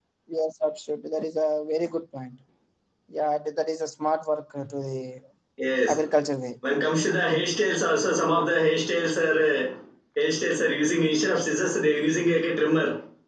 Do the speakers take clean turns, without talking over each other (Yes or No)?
Yes